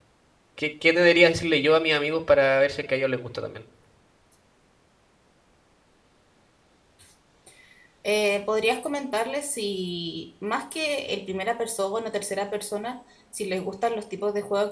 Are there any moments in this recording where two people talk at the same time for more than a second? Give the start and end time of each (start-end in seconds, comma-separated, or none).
none